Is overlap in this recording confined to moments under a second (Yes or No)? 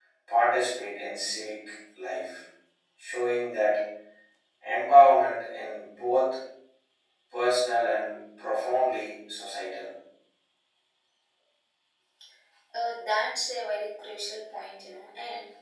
Yes